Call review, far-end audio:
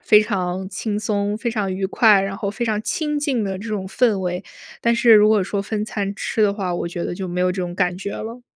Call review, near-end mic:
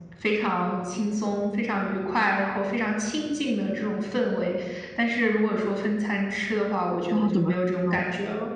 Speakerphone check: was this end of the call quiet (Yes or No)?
No